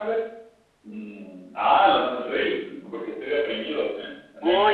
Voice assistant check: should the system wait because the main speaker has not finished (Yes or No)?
No